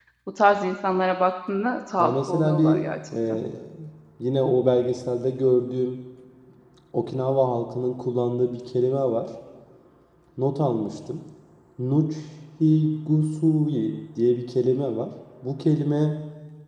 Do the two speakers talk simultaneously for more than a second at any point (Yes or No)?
Yes